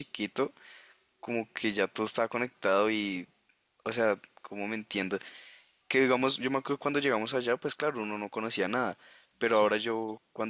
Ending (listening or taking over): listening